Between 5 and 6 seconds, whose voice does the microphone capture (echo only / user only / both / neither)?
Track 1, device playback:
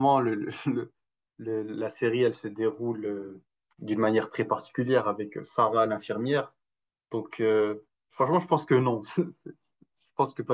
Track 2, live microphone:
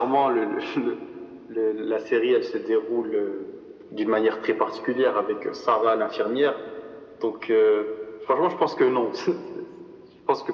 echo only